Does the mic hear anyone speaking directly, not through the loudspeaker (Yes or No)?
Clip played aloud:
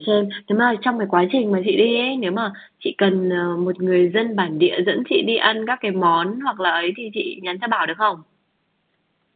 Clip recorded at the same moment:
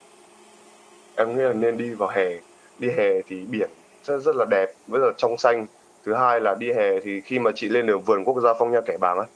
Yes